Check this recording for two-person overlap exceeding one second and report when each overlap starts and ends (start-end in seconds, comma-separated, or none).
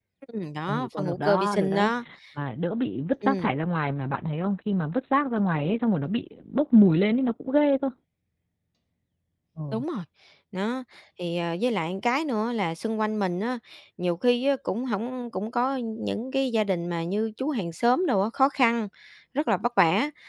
0.7-1.9